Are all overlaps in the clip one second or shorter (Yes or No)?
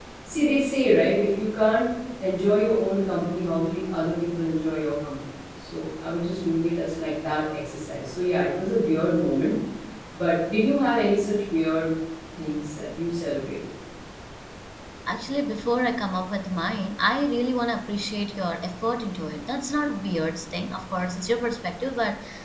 Yes